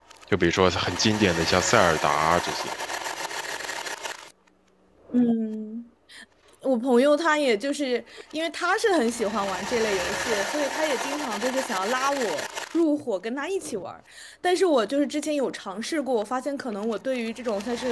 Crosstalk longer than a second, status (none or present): none